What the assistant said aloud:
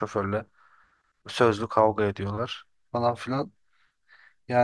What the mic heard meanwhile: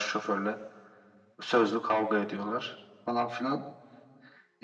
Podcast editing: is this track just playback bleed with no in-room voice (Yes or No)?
Yes